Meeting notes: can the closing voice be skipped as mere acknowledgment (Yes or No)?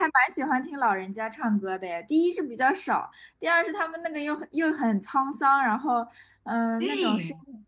Yes